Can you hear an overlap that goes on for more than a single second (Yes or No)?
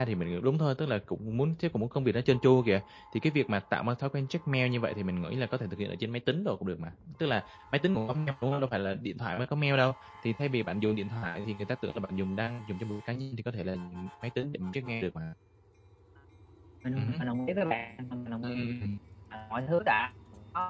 No